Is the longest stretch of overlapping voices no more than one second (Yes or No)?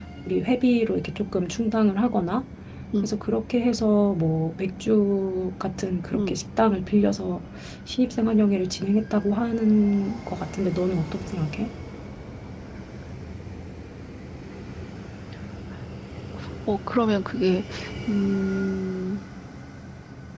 Yes